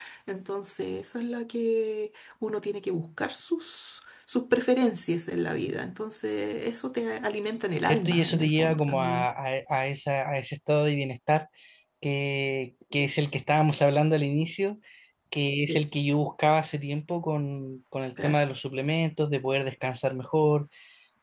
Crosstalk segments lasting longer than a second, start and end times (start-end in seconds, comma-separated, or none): 7.8-9.3